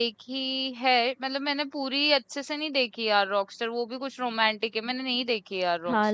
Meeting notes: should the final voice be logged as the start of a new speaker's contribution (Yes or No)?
Yes